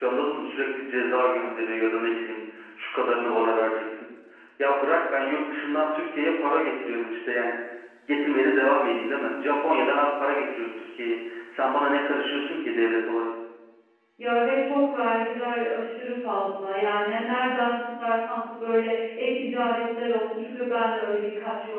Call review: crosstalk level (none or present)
none